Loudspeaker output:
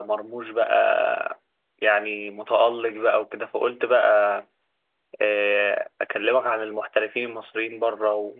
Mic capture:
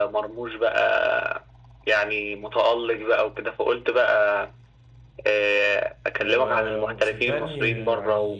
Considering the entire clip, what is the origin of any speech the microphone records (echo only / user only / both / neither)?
both